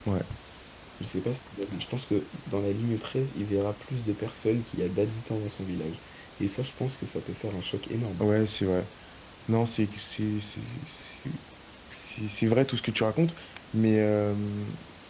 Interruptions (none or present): none